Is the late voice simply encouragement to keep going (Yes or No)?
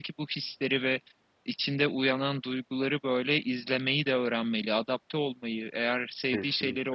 Yes